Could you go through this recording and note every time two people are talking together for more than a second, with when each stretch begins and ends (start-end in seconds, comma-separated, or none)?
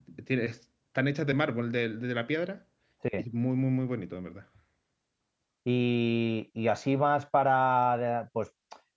none